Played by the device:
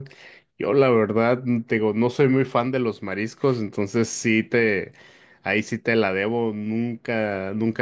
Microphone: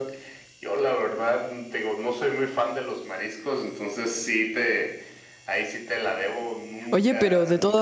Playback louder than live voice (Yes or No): No